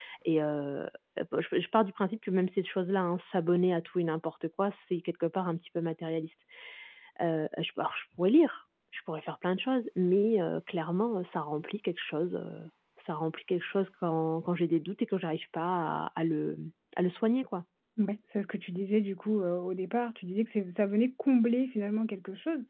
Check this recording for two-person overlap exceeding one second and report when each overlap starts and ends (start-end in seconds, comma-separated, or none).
none